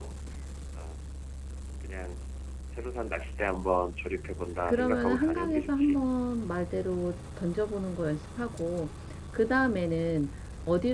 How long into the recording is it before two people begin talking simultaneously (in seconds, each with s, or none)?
4.7 s